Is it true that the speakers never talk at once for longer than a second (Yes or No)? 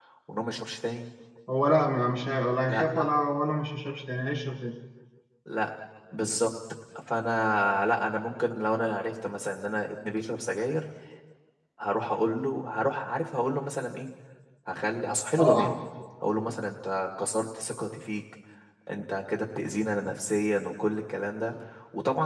Yes